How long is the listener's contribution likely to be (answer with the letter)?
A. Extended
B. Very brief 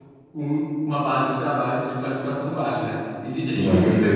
B